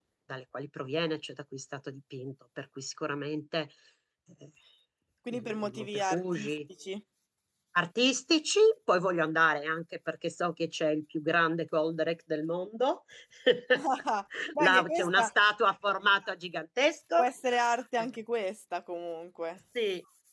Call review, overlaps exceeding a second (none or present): present